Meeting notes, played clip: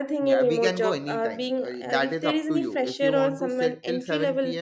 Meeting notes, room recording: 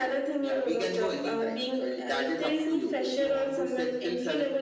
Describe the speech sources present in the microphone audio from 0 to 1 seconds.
echo only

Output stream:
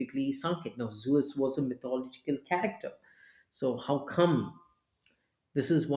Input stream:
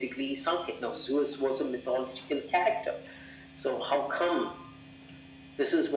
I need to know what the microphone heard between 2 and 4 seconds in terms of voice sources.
echo only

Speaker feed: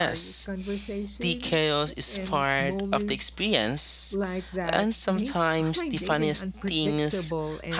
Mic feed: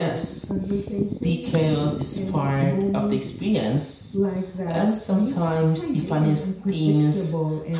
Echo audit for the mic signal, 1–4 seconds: echo only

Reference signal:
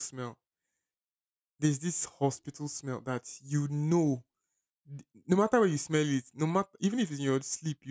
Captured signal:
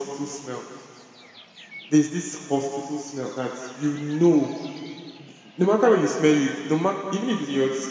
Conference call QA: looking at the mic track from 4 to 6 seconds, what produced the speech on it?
echo only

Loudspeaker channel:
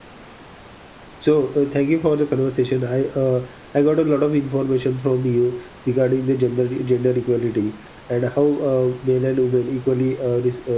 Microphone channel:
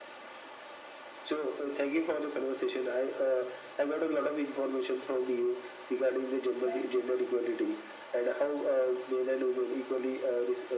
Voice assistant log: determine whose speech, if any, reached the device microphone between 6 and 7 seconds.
both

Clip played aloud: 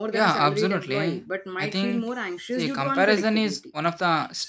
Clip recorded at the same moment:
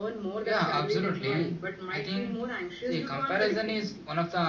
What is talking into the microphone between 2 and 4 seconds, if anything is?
echo only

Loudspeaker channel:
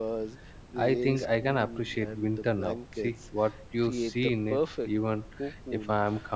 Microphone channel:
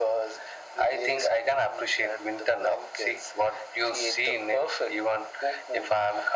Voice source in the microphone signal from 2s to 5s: echo only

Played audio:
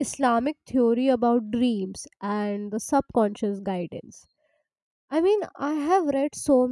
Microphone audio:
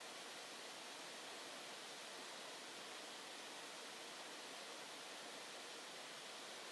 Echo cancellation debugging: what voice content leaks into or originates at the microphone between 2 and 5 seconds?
neither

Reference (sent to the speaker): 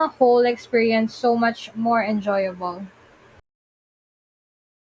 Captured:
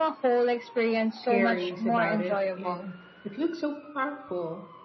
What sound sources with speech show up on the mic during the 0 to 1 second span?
echo only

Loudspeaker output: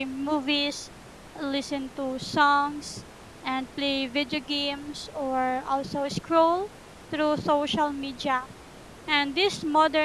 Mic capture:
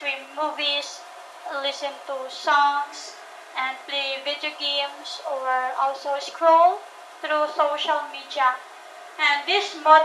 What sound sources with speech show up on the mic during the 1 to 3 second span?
echo only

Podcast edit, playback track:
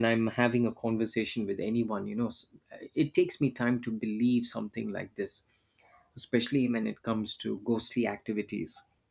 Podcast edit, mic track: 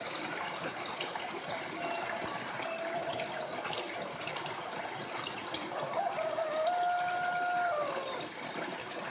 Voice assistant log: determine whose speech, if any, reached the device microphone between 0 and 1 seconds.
neither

